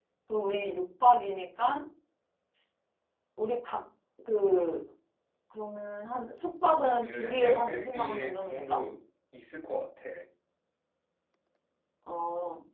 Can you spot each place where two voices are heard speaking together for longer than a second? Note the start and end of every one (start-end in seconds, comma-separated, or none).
7.0-8.8